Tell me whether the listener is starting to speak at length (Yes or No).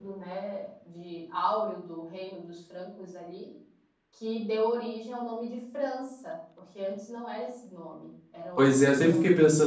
Yes